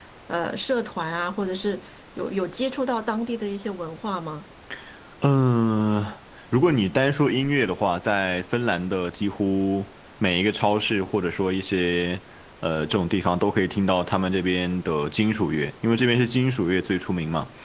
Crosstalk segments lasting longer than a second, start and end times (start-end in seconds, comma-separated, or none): none